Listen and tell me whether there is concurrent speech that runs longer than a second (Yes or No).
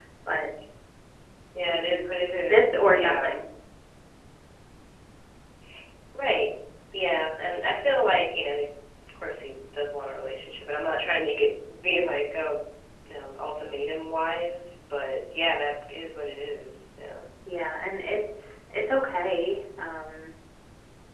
Yes